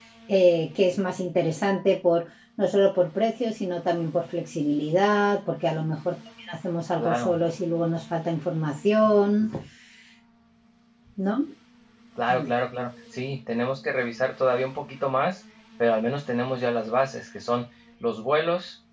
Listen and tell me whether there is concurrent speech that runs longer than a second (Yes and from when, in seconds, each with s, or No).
No